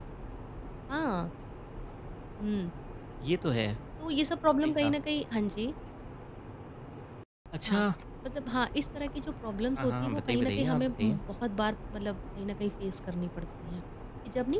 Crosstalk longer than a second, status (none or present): present